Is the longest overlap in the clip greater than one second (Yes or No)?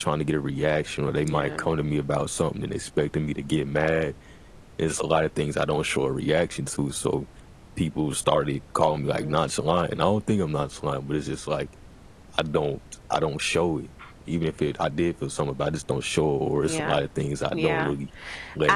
No